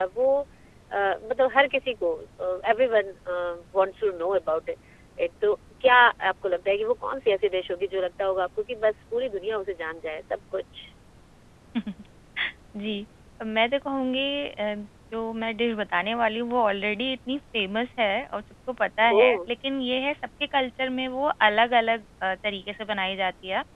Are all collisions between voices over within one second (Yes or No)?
Yes